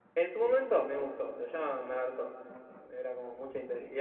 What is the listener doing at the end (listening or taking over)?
taking over